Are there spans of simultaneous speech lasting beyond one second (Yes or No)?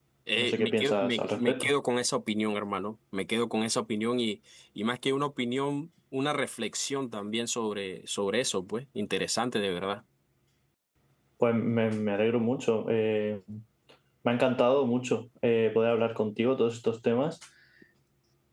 Yes